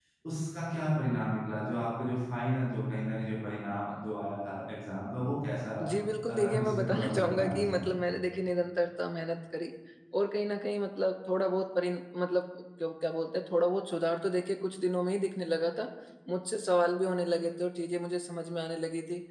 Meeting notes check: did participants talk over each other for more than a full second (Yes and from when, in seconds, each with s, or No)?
Yes, from 6.3 s